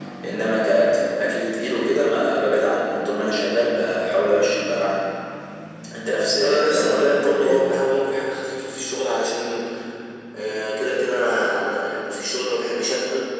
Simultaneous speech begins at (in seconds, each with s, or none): 6.4 s